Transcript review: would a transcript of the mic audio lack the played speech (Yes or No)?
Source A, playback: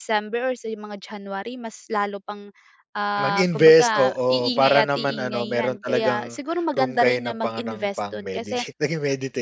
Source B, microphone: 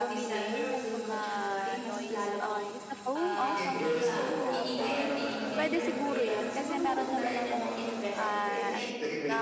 No